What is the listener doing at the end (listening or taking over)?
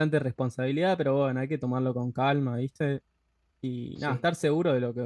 listening